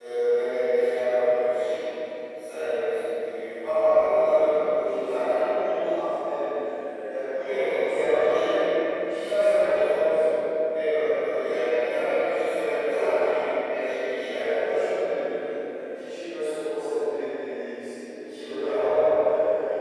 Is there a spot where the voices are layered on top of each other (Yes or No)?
Yes